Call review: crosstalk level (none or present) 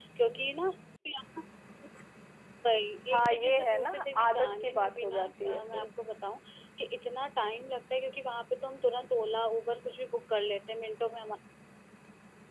present